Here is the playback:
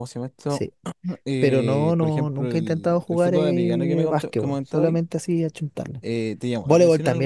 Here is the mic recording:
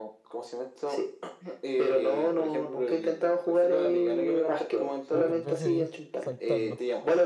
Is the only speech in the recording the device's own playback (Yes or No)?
No